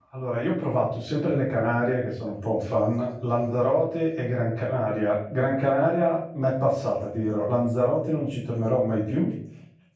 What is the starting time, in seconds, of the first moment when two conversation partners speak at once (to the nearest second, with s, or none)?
none